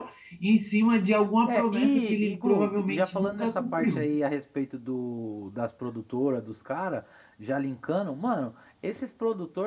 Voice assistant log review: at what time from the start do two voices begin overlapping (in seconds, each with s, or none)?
1.5 s